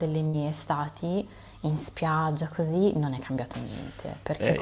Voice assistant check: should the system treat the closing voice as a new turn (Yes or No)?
Yes